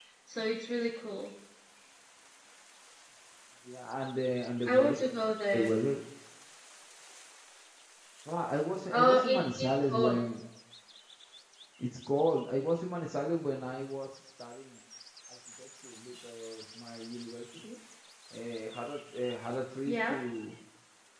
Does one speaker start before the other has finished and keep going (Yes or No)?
Yes